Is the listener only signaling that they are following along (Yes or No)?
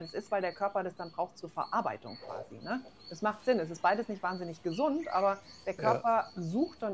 Yes